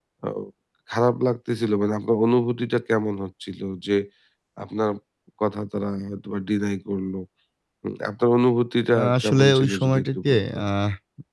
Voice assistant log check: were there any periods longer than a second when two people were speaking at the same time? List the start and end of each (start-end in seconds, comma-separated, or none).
9.0-10.6